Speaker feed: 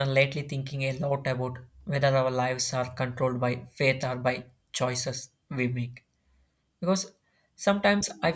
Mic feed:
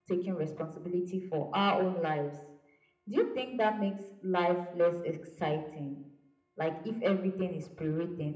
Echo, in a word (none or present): none